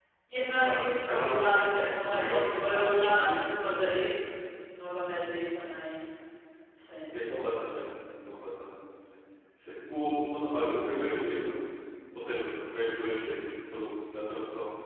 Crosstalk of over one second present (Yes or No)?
Yes